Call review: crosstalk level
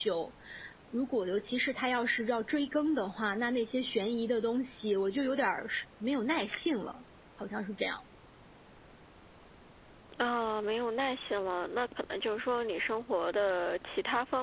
none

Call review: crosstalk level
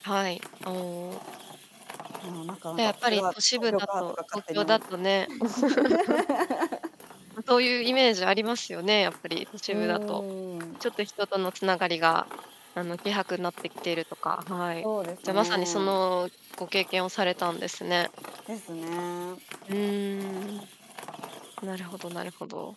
present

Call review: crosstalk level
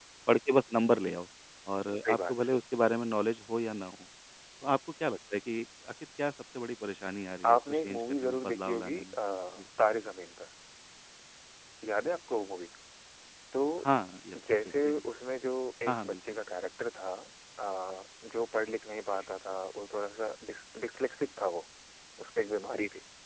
present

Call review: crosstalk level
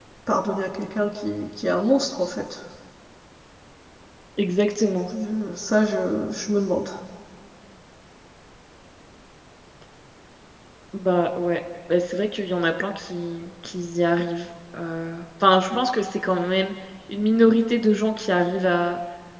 none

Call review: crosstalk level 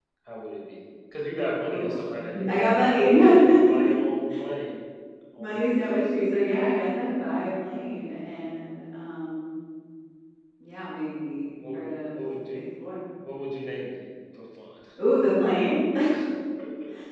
present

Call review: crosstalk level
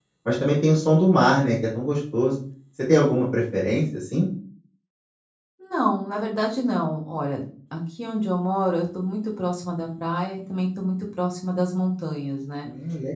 none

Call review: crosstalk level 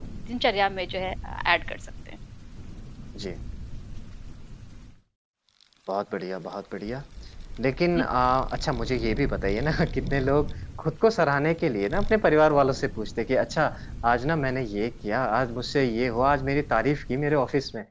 none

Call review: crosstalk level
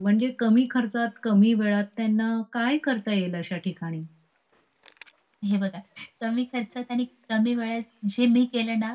none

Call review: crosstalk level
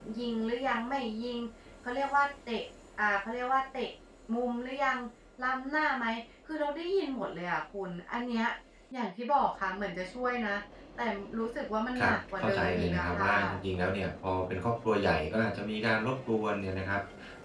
present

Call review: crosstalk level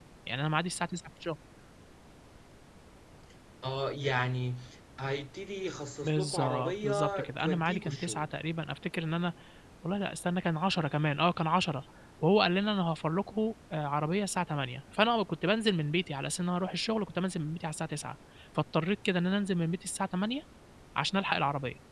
present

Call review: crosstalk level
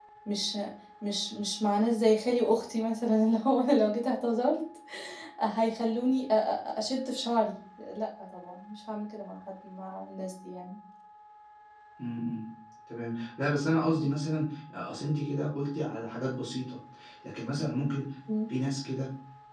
none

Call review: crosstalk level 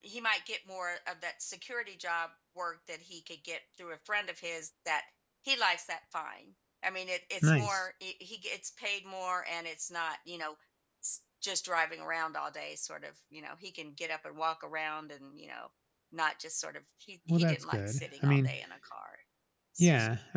present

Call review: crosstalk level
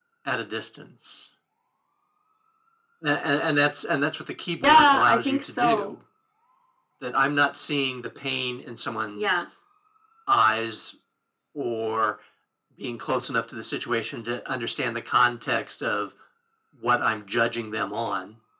present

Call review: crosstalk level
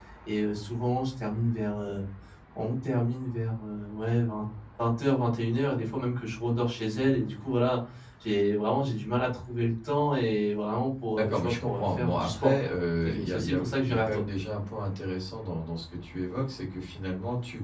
present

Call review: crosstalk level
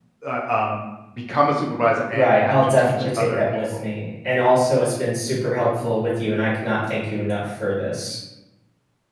present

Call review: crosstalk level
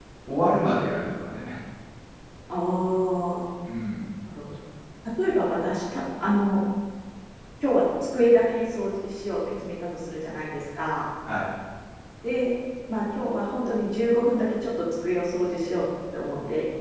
none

